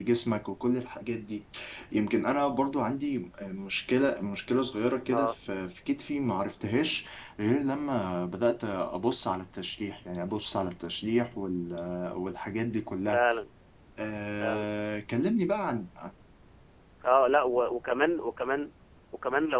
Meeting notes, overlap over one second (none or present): none